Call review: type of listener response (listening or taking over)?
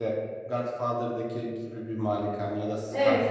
taking over